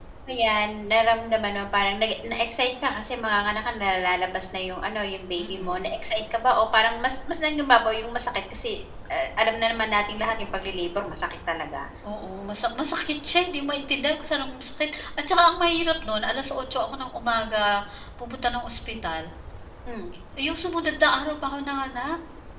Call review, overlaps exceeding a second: none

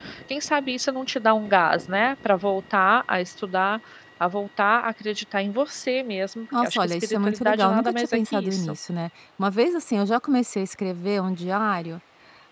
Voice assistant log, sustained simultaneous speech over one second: present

